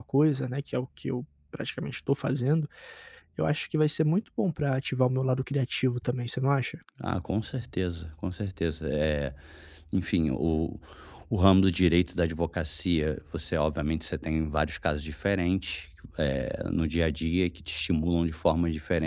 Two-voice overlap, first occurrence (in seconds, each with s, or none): none